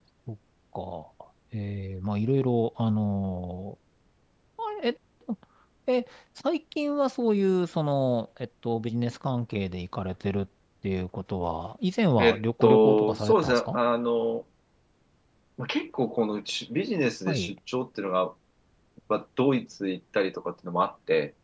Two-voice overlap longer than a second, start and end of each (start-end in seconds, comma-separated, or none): 12.2-13.8